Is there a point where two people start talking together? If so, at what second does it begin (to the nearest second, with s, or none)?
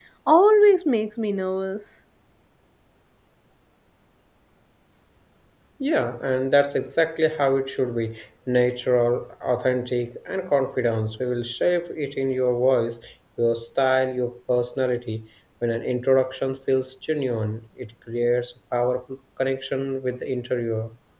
none